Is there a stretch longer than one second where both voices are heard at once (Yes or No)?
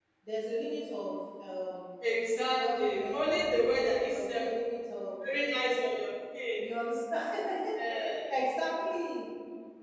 Yes